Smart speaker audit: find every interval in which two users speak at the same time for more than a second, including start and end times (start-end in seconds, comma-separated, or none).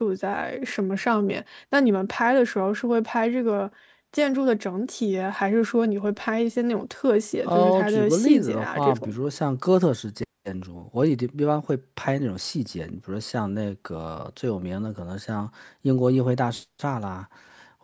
7.4-9.1